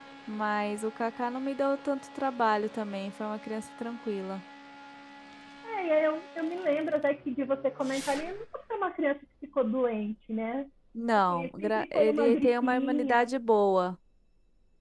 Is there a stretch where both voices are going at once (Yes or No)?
Yes